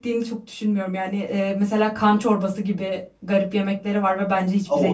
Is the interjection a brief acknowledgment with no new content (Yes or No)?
No